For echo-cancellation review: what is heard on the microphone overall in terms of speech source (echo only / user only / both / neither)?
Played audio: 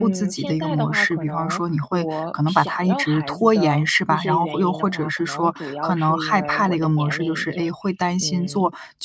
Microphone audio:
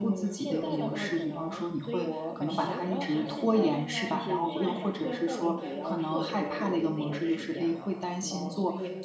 both